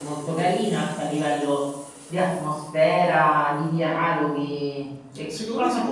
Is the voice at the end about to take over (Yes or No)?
Yes